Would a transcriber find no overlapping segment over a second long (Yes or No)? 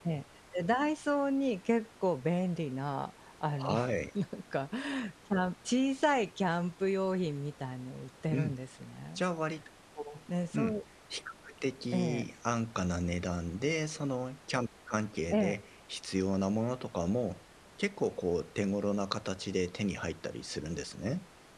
Yes